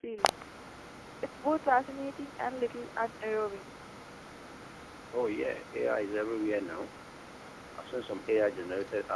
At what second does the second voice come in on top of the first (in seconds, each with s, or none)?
none